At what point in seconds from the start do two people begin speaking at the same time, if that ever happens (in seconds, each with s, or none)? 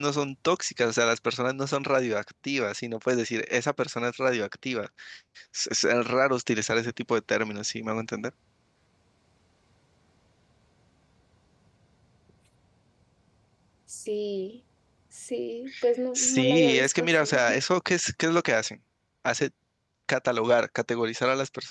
16.1 s